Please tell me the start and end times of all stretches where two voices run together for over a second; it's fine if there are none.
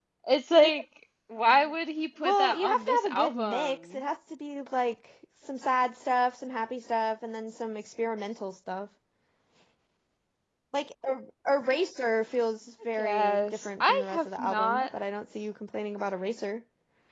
2.2-4.0, 13.0-14.8

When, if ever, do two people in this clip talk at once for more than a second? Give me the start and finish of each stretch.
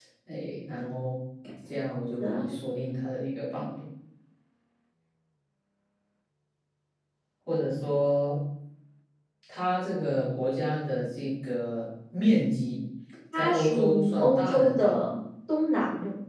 13.4-15.0

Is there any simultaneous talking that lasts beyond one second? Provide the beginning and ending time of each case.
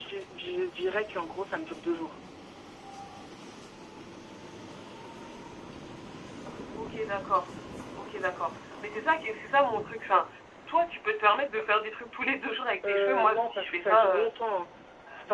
12.8-14.2

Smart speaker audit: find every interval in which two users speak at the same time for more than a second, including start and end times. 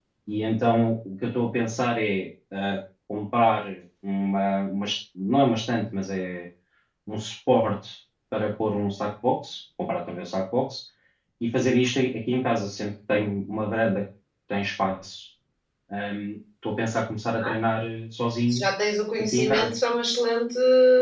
none

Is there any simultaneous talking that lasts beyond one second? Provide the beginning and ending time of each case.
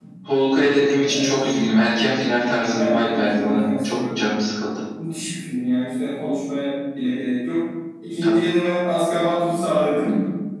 2.7-4.2

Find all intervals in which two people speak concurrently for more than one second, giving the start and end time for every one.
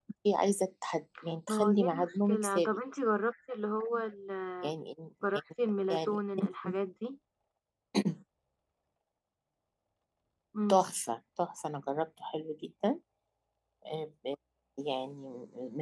1.5-2.8

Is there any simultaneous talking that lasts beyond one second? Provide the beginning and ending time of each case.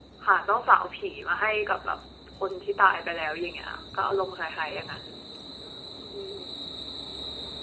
none

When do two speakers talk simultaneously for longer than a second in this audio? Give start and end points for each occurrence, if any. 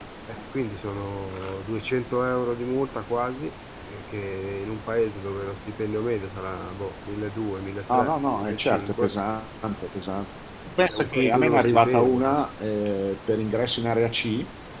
7.9-9.1, 10.9-12.4

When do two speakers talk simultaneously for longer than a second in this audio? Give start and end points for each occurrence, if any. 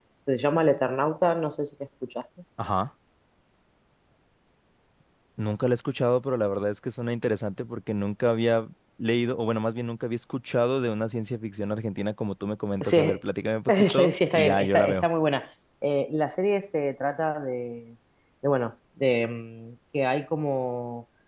13.7-15.1

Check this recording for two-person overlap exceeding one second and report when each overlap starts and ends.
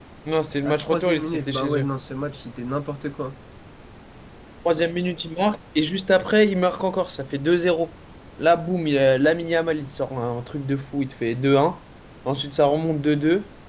0.6-1.9

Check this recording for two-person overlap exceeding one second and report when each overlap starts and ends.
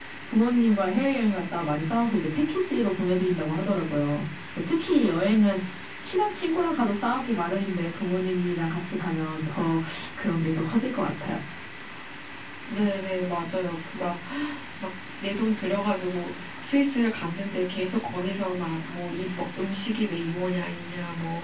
none

